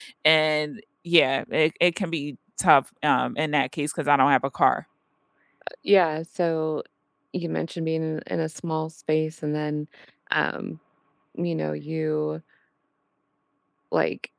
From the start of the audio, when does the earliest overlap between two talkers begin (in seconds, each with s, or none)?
none